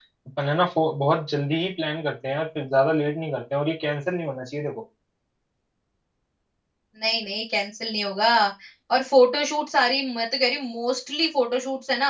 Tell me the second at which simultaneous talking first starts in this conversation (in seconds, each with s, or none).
none